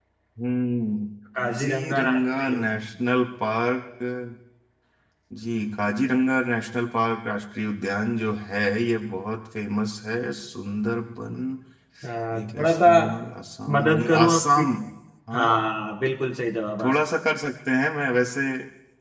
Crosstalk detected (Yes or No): Yes